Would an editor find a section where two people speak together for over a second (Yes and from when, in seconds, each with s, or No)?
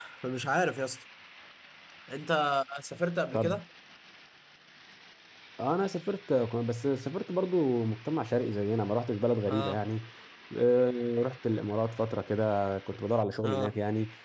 No